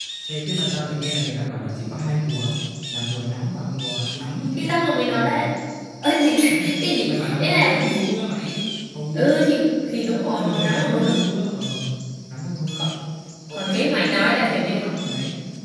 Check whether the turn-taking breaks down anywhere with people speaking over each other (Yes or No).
Yes